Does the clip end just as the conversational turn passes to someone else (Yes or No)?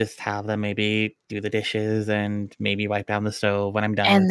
Yes